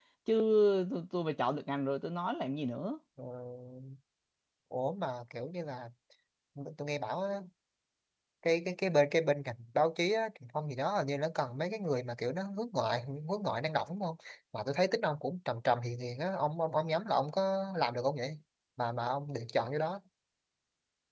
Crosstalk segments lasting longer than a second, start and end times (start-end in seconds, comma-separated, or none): none